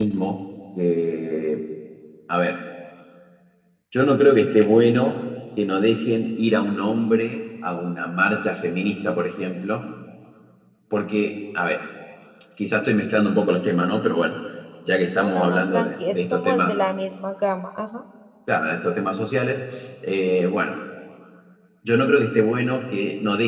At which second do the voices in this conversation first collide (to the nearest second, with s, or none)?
15 s